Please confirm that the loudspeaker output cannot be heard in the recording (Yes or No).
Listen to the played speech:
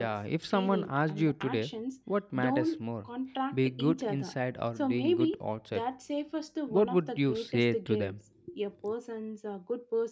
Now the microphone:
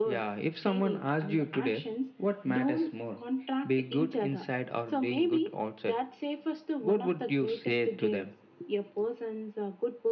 No